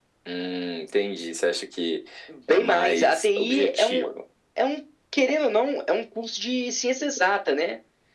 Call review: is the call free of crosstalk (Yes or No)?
No